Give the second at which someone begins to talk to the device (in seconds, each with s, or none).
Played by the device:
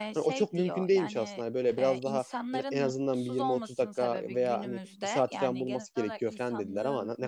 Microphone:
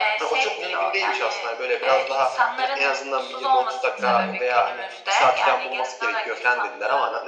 4.0 s